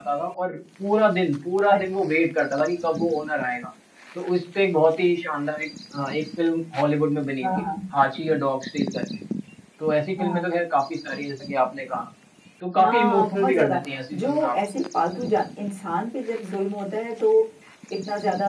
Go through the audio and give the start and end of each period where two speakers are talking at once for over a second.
12.8-14.6

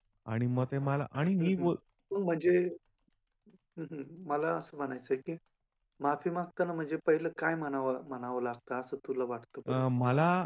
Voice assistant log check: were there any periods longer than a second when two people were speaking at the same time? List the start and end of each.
none

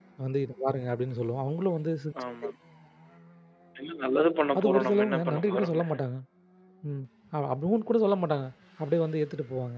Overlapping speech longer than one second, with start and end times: 4.6-5.8

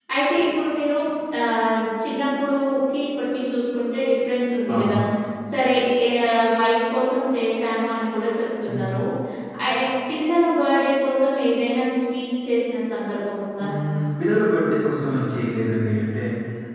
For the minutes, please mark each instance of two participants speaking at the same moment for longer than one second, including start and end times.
none

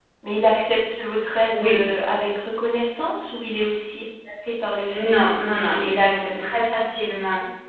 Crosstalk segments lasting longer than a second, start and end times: 4.9-6.5

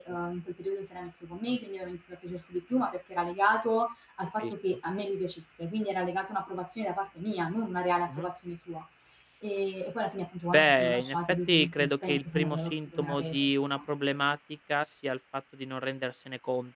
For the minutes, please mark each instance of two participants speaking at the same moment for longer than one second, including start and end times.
10.5-13.8

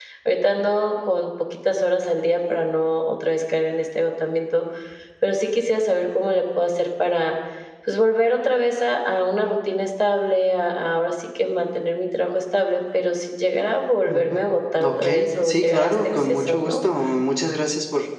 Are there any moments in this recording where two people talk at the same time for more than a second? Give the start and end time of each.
14.8-16.8

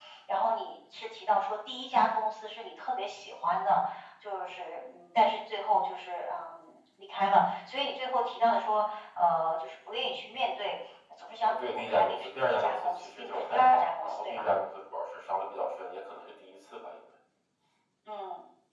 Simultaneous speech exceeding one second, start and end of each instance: 11.4-14.5

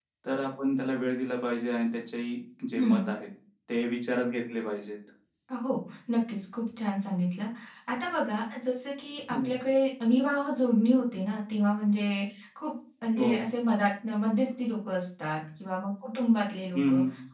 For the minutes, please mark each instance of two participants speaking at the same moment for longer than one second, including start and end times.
none

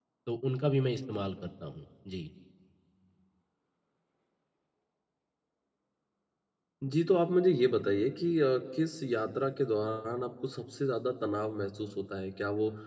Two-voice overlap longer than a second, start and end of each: none

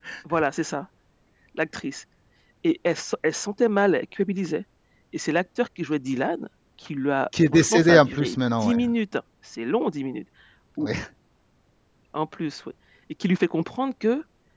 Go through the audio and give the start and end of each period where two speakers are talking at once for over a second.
7.5-8.7

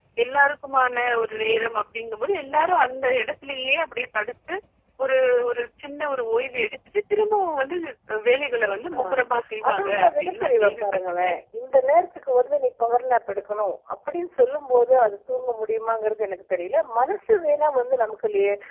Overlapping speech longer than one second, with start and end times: 9.7-11.4

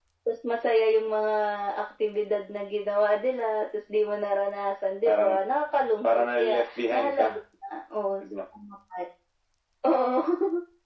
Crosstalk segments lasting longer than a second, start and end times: 6.0-7.3

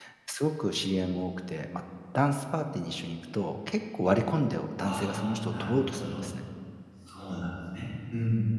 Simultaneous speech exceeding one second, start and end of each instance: 4.8-6.2

